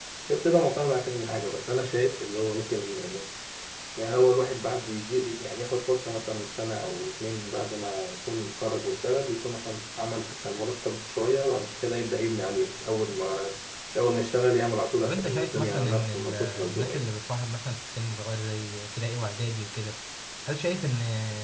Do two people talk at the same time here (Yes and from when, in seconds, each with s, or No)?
Yes, from 15.0 s